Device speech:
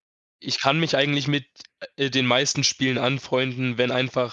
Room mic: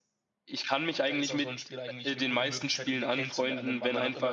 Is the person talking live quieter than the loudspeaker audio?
Yes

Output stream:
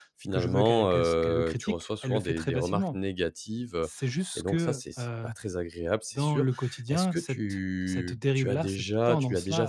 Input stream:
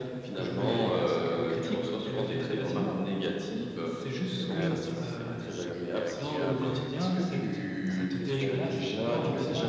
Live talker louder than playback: No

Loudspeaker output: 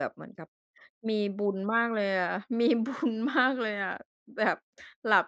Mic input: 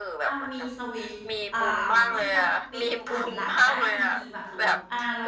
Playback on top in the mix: Yes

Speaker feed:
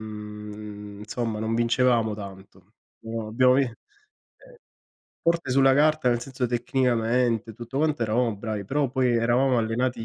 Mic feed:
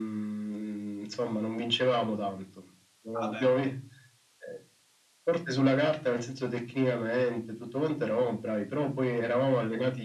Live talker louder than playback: No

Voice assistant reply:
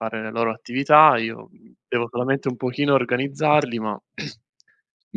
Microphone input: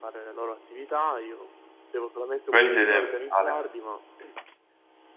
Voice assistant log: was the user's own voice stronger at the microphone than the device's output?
Yes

